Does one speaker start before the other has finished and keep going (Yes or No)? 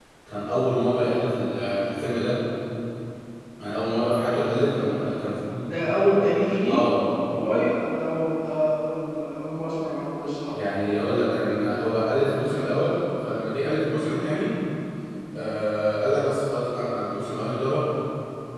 No